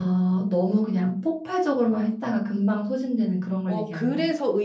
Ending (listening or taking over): taking over